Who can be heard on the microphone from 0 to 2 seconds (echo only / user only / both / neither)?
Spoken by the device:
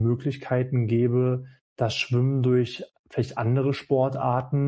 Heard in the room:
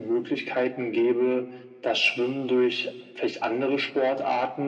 echo only